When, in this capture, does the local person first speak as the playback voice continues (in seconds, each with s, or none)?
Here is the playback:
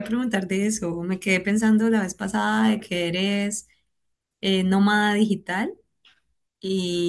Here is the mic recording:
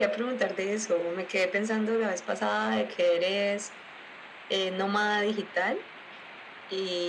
none